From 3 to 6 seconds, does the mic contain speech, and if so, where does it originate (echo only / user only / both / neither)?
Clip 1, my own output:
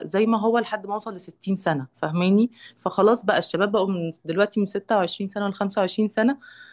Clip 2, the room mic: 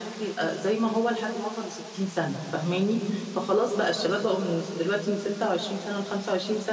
echo only